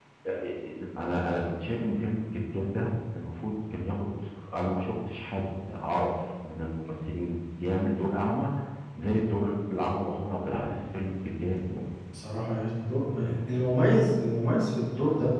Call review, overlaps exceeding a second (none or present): none